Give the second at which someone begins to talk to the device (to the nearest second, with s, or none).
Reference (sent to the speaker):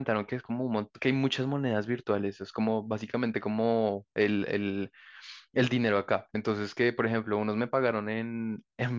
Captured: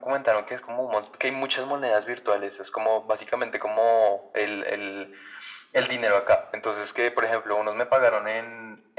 none